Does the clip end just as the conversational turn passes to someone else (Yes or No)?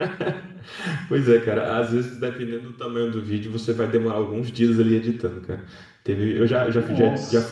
No